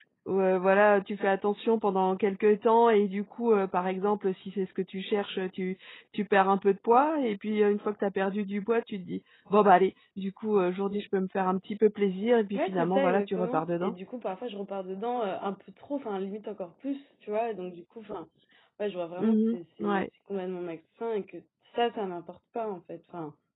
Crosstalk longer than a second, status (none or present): present